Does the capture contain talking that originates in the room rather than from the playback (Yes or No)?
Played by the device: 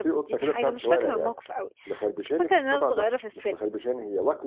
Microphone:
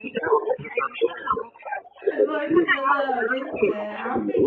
Yes